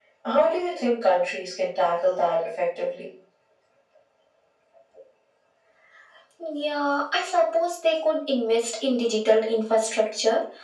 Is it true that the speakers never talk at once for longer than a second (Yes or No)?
Yes